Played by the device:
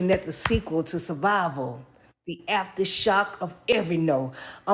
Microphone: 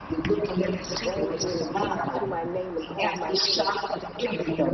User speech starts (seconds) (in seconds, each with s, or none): 1.0 s